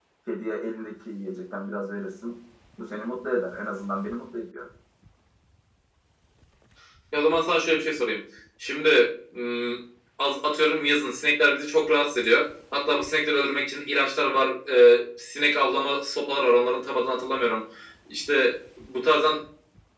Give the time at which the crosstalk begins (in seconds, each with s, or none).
none